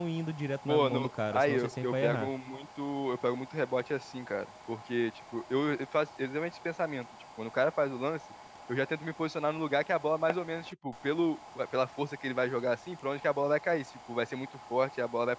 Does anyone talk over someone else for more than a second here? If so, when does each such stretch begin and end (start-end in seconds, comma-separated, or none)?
0.7-2.3